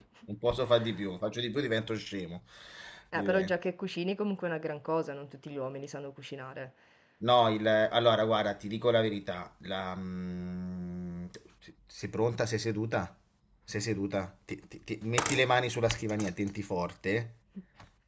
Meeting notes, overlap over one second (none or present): none